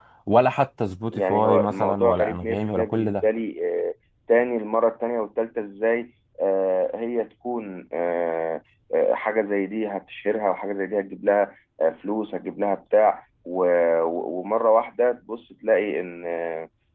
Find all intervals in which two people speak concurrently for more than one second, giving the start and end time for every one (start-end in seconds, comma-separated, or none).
1.1-3.3